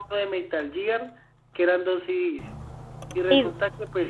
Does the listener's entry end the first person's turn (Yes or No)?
No